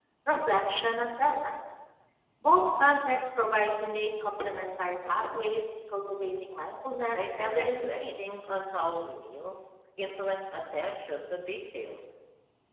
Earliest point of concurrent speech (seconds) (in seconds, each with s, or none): 7.1 s